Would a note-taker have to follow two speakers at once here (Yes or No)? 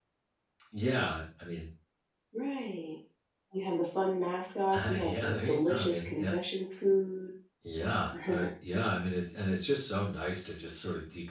Yes